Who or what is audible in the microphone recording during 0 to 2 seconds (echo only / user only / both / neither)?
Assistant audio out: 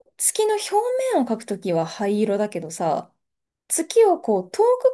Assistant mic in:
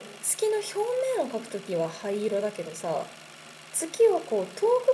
echo only